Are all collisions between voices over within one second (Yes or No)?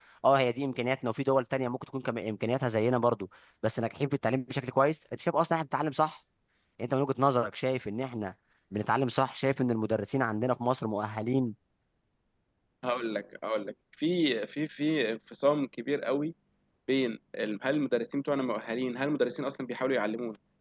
Yes